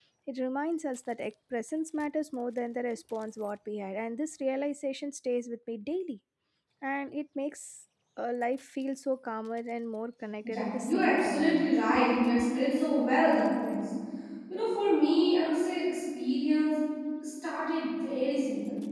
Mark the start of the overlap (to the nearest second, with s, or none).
10 s